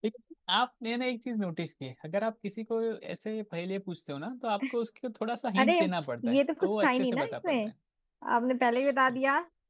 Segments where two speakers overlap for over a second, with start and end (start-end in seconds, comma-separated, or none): 6.3-7.7